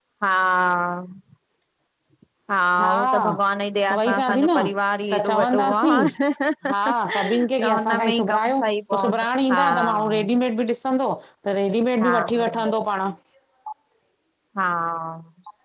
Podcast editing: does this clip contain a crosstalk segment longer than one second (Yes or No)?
Yes